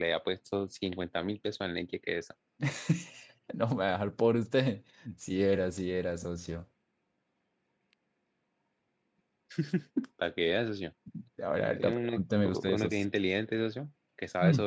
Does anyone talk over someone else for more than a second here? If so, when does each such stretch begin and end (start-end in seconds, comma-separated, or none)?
11.8-13.0